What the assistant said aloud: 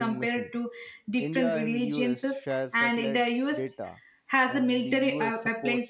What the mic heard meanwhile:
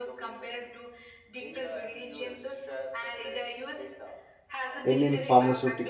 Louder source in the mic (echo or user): user